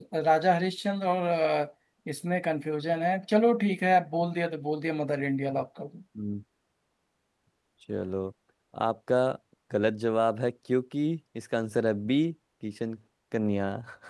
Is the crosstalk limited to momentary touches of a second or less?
Yes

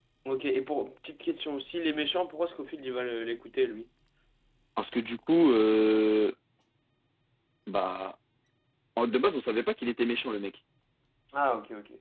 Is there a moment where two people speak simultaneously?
No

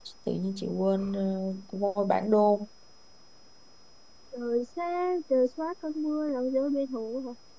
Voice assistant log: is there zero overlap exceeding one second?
Yes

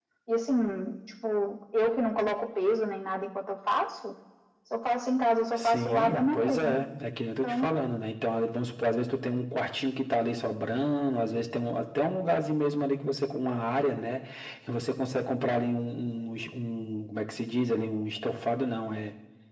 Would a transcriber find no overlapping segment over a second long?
No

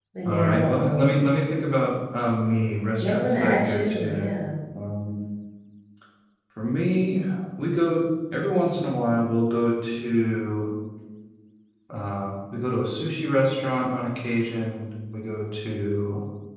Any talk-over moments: Yes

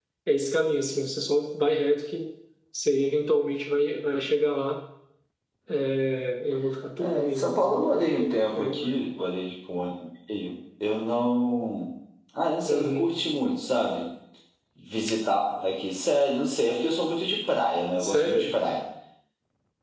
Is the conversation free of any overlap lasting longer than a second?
No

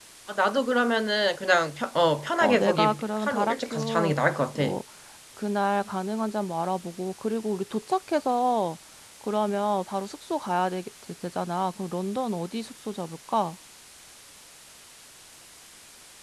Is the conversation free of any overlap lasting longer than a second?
No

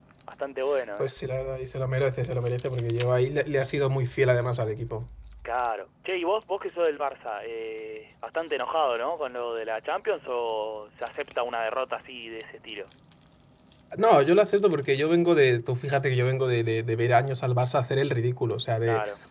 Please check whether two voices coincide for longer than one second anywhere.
No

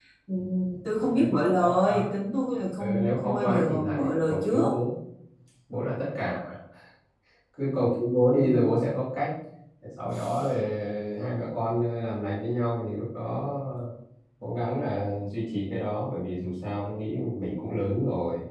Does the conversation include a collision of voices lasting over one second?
Yes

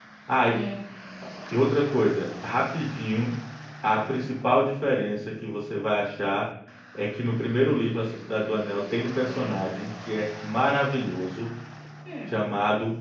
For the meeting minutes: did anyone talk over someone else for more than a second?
No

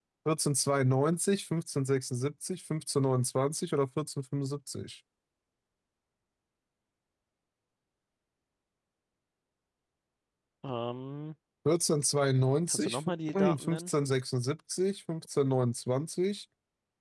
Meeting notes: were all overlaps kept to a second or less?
No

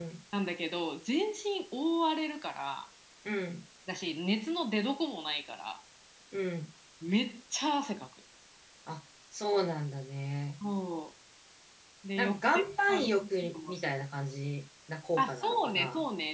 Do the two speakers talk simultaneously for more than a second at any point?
Yes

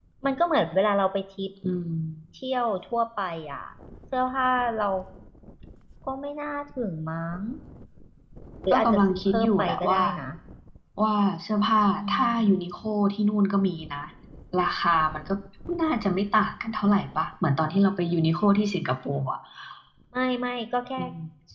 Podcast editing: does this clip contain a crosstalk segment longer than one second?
Yes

